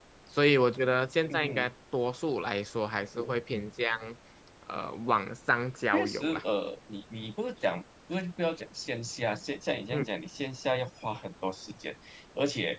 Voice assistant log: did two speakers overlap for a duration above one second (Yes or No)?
No